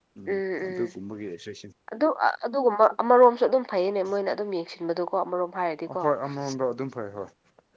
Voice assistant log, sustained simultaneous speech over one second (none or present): none